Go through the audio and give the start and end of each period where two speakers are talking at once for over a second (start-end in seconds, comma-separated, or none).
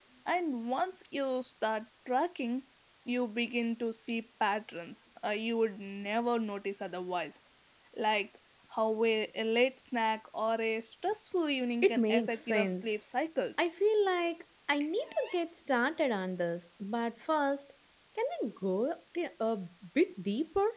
11.8-13.0